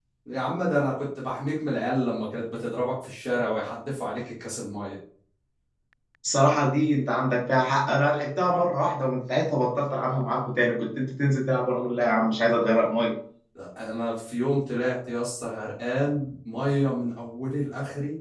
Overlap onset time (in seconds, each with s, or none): none